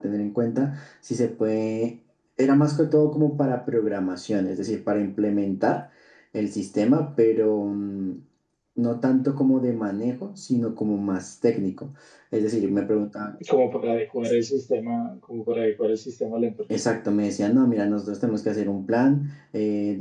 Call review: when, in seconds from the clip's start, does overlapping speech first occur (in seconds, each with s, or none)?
none